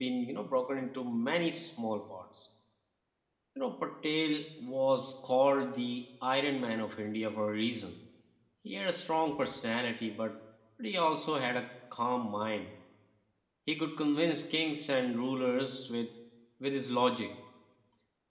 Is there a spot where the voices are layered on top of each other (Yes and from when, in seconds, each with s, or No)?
No